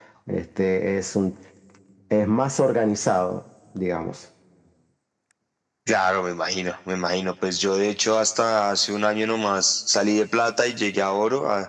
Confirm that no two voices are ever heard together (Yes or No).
Yes